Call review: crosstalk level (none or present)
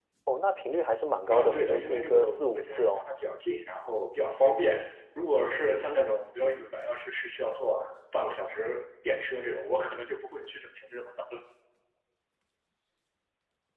present